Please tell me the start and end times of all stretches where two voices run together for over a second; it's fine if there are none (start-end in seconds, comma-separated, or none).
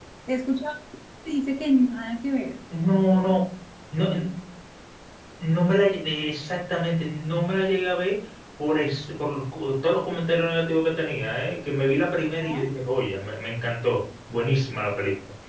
none